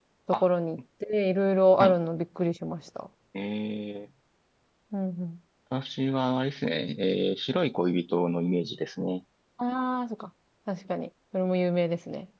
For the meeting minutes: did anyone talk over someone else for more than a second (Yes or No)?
No